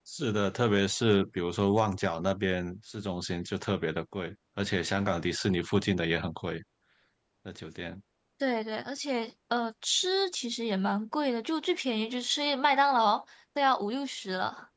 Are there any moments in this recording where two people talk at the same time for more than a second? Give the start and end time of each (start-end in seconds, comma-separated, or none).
none